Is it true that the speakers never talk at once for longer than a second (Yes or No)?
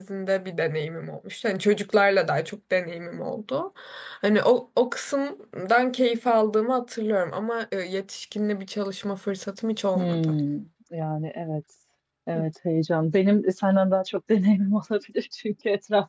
Yes